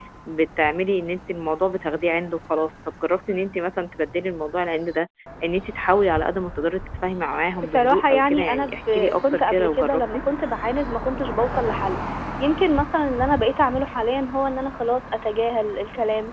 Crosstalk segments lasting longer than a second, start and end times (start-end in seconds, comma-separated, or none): 7.6-10.0